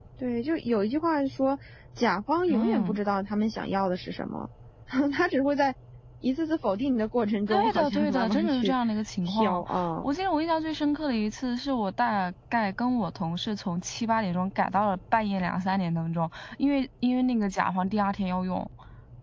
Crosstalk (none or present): present